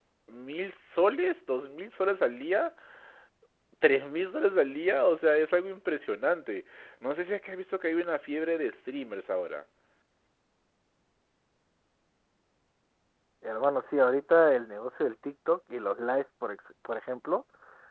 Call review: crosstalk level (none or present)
none